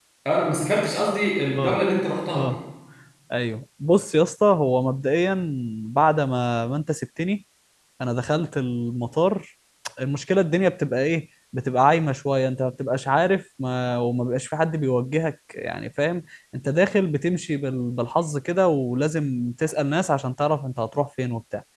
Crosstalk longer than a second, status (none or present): none